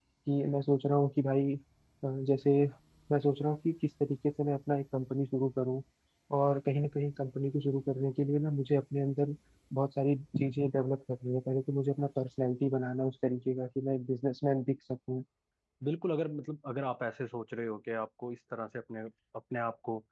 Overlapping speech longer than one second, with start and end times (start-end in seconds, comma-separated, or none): none